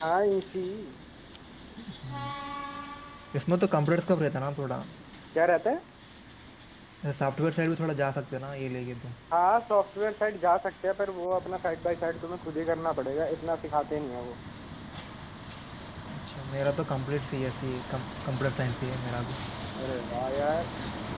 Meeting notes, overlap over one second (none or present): none